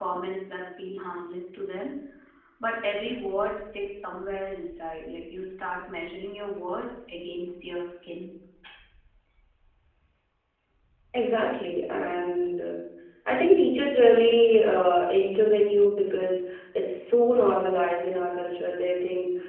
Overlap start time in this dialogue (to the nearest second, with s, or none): none